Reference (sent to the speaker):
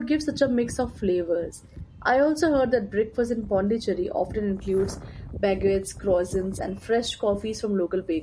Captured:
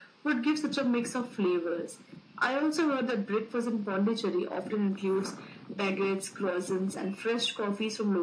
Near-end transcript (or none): none